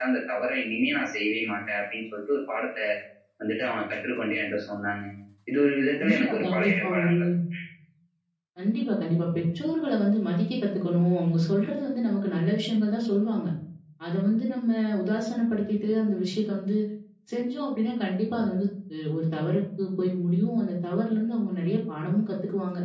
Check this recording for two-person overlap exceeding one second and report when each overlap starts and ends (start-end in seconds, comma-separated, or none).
6.0-7.2